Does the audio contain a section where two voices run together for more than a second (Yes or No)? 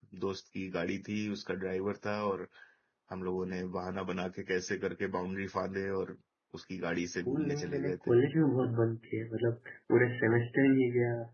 Yes